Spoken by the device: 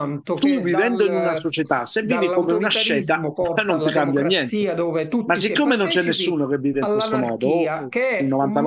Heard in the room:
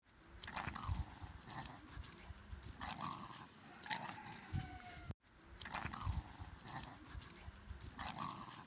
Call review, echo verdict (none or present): none